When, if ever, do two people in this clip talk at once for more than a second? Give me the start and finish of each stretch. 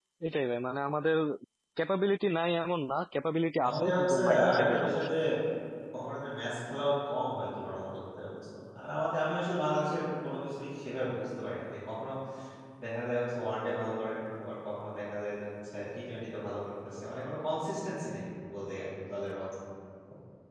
3.6-5.1

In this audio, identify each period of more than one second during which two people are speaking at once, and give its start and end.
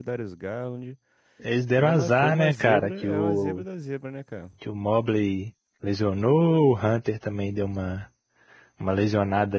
1.8-3.6

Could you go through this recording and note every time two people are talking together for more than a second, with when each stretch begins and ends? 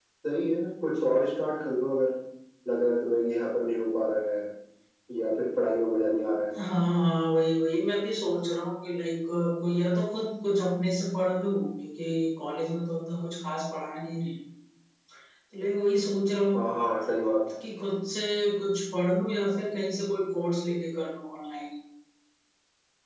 none

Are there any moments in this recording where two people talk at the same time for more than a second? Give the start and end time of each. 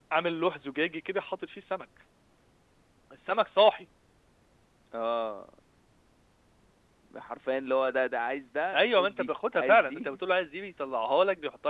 8.7-10.2

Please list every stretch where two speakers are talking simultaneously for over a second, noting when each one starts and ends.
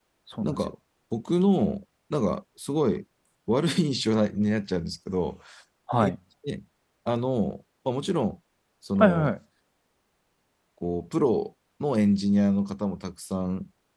none

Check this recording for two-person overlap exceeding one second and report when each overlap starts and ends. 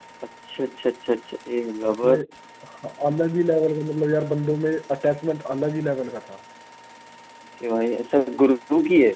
none

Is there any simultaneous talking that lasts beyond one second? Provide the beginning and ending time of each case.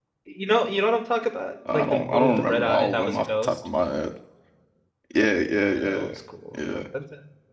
1.7-3.6

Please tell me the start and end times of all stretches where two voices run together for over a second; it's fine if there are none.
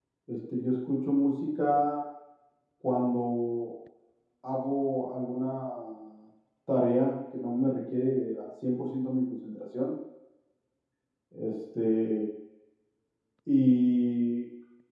none

